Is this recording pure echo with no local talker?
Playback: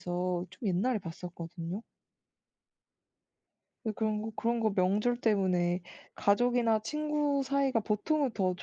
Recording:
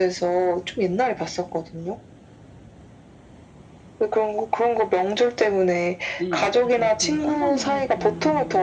No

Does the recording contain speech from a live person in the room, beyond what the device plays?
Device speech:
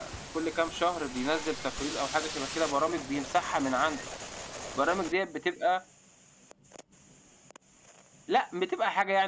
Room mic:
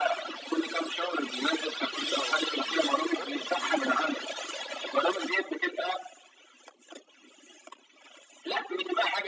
Yes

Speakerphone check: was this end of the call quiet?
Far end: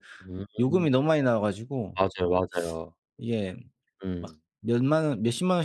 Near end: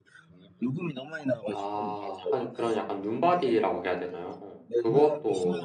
No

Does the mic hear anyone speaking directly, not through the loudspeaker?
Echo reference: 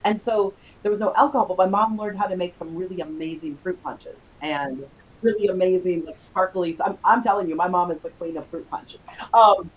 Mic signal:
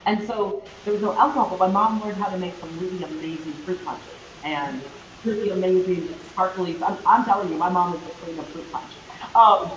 No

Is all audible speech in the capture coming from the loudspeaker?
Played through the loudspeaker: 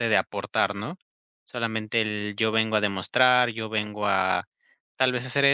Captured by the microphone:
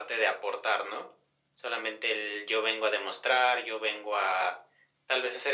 Yes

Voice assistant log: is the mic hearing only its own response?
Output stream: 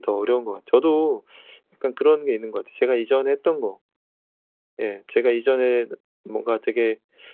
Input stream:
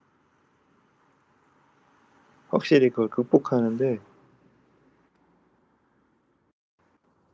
No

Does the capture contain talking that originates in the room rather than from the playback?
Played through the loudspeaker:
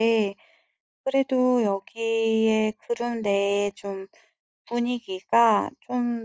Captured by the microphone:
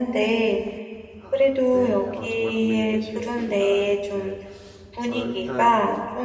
Yes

